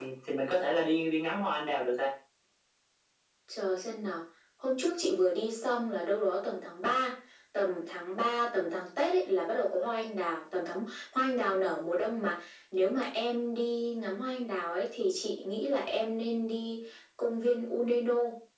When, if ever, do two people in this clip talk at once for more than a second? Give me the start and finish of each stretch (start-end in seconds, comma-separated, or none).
none